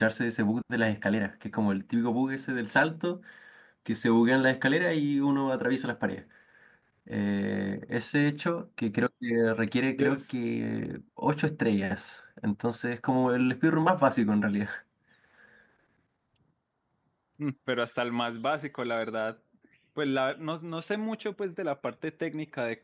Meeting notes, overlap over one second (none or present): none